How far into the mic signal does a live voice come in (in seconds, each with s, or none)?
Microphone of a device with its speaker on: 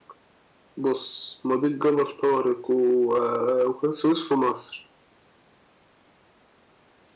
none